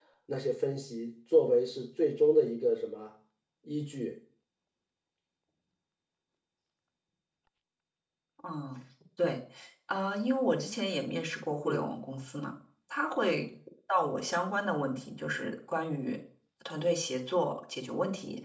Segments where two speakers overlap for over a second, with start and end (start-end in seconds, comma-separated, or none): none